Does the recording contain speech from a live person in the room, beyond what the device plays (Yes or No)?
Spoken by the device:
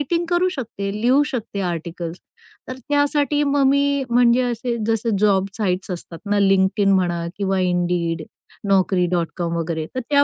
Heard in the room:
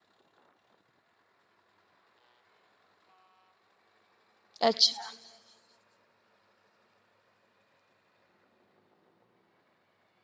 Yes